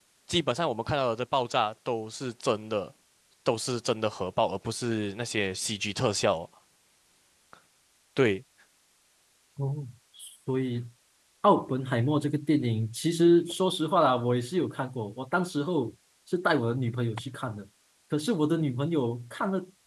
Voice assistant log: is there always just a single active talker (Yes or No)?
Yes